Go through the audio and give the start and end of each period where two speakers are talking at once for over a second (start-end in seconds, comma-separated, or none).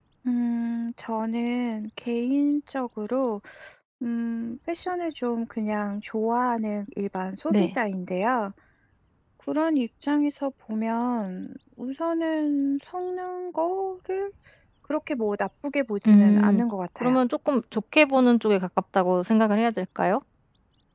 none